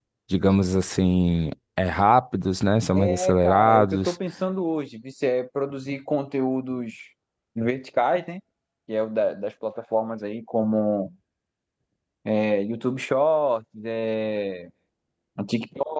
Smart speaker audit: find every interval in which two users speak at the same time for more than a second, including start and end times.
2.9-4.1

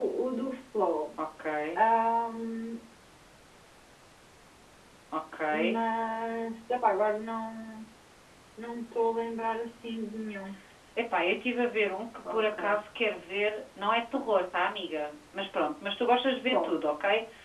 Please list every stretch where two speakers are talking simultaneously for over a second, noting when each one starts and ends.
none

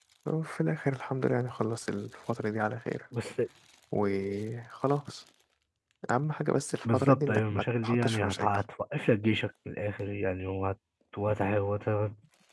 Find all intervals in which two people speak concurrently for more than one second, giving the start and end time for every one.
6.9-8.5

